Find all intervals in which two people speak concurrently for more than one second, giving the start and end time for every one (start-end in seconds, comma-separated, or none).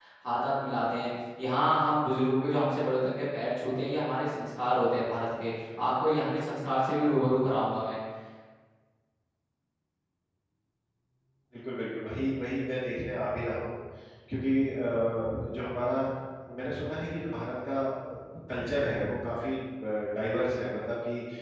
none